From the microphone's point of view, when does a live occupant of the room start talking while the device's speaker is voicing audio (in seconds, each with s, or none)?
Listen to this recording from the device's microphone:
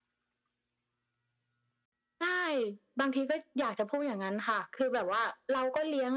none